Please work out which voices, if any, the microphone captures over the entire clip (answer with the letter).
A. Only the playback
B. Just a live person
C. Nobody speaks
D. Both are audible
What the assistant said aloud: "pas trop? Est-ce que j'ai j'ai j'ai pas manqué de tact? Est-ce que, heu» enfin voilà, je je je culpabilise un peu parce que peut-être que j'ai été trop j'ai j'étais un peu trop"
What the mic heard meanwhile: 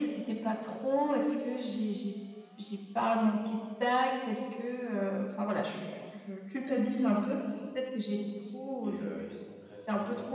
D